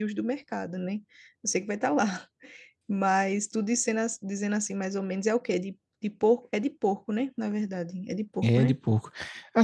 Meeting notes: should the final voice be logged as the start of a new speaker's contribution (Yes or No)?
Yes